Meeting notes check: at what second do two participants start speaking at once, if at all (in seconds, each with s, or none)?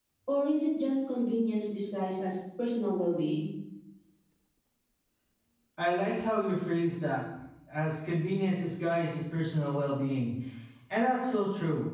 none